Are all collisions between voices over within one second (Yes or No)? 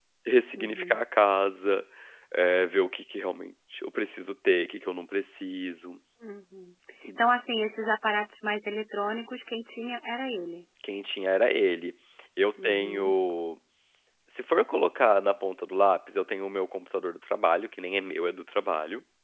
Yes